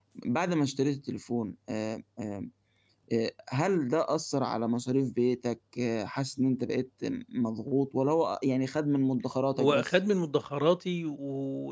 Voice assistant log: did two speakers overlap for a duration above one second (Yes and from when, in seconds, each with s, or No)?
No